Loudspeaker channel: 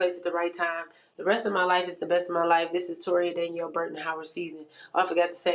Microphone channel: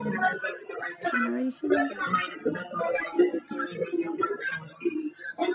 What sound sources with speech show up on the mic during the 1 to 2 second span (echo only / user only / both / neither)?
both